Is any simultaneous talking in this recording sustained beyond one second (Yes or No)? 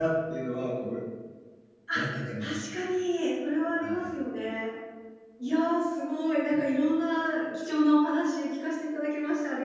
No